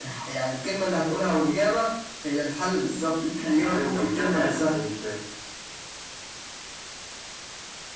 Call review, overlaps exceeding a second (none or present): present